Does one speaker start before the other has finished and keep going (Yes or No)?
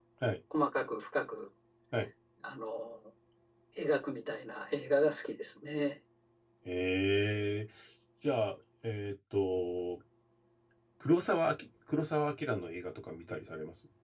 No